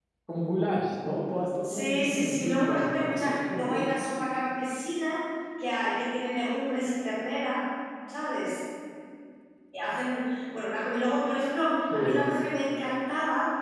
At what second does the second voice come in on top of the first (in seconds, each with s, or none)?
1.6 s